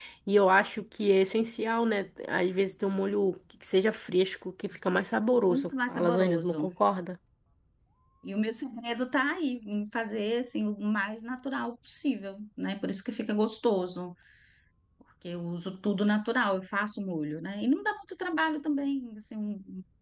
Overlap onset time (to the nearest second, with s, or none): 5 s